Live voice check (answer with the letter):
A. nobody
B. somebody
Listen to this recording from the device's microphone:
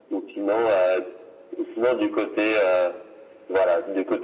A